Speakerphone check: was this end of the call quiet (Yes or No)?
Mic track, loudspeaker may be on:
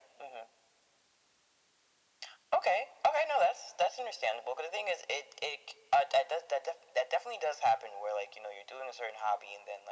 Yes